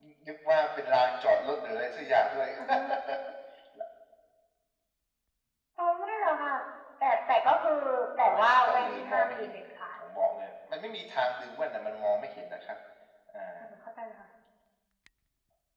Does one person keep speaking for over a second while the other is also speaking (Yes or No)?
Yes